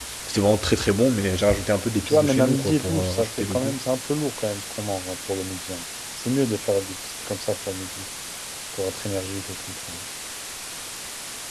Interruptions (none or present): present